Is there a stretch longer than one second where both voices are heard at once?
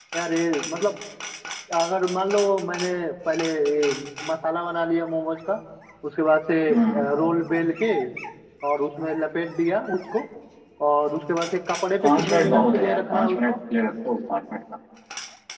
Yes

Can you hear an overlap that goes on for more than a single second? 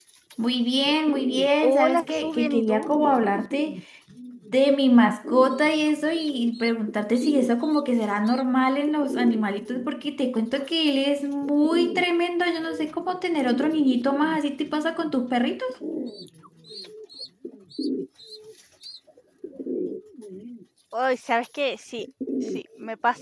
Yes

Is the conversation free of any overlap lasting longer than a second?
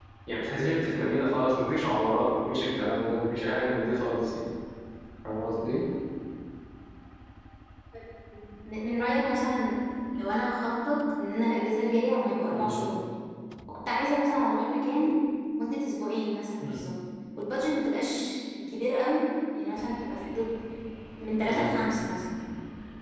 Yes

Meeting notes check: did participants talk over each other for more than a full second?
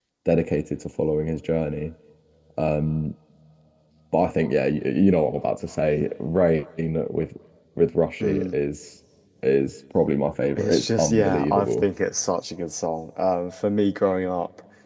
Yes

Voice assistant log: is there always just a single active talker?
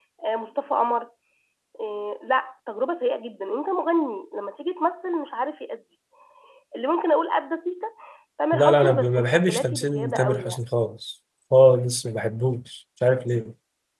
No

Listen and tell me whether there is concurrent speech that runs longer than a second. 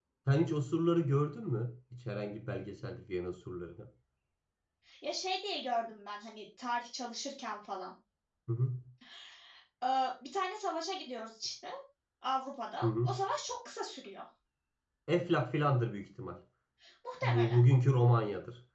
No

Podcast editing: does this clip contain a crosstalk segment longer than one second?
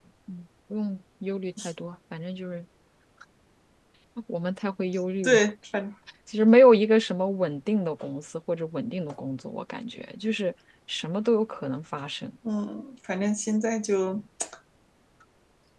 No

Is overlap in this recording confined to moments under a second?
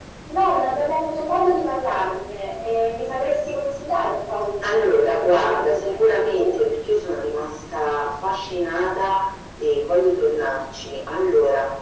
No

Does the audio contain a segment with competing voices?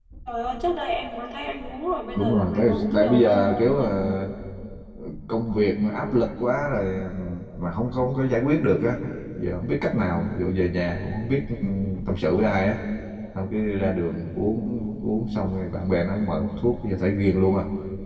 Yes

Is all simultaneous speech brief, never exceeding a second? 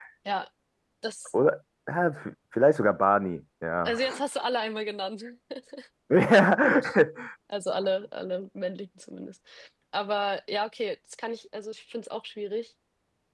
Yes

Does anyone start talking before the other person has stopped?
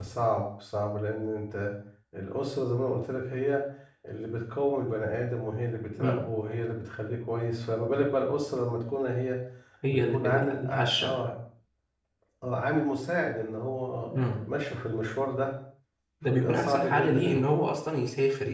Yes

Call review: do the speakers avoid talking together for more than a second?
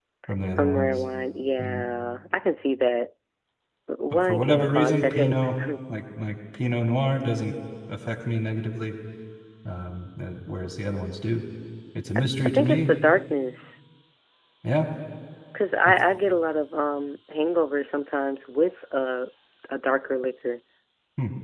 No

